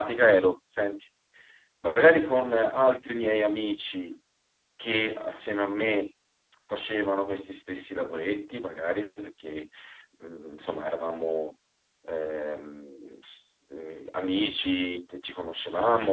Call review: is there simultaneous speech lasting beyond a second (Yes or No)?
No